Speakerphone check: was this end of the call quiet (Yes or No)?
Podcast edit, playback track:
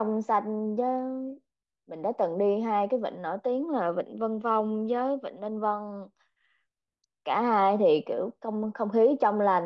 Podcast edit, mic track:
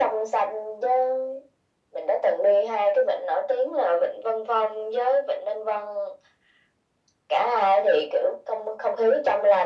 Yes